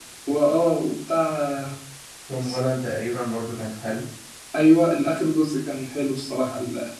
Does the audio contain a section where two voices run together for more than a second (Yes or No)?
No